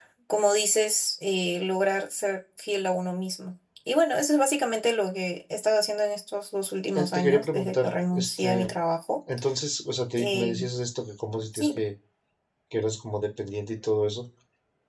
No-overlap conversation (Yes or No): No